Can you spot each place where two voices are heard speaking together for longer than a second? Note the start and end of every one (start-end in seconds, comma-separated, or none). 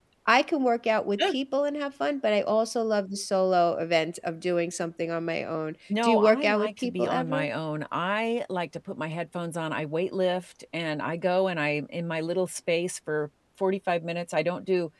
6.0-7.5